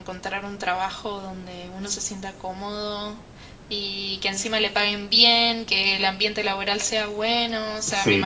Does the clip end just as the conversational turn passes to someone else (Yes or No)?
No